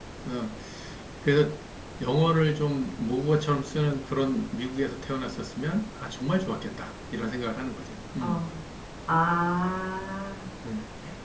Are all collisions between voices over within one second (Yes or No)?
Yes